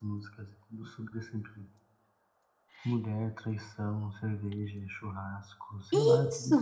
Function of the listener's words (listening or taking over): listening